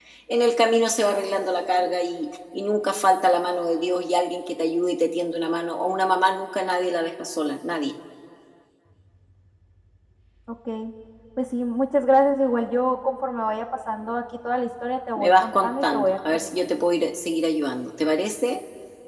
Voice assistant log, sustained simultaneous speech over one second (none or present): present